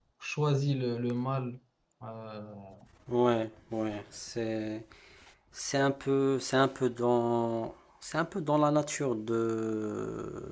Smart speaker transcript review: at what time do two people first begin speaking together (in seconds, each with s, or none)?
none